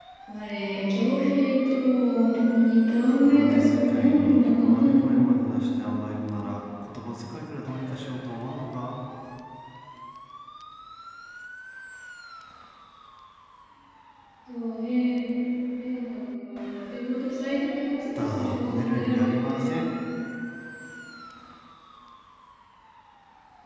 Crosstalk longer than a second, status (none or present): present